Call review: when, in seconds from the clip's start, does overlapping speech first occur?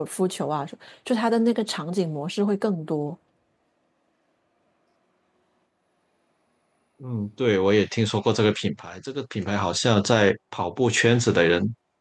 none

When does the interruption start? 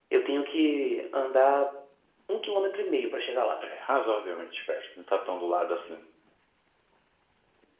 none

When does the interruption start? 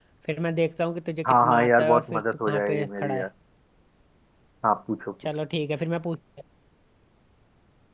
1.2 s

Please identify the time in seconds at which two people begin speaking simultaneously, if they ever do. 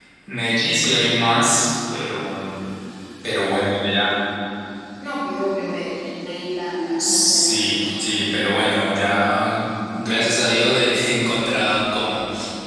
7.0 s

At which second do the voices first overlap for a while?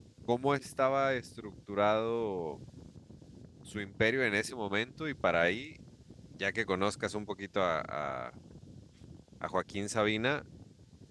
none

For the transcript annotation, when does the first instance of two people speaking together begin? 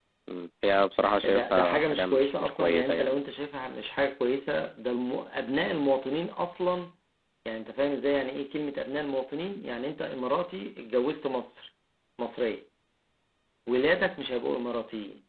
1.2 s

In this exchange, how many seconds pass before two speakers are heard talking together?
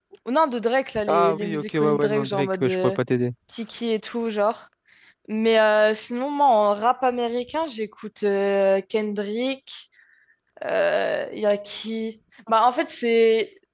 1.1 s

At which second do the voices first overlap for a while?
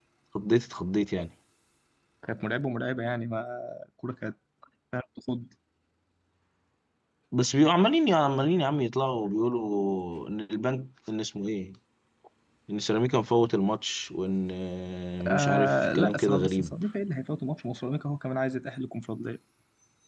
15.2 s

